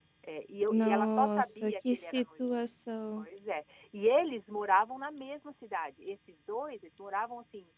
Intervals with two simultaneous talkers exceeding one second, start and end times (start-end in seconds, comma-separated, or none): 0.7-2.2